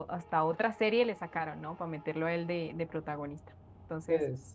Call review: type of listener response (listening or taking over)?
listening